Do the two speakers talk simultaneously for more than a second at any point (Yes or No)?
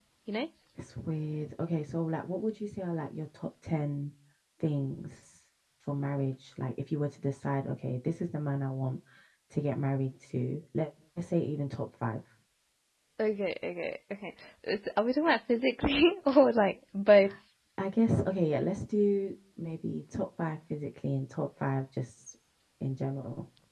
No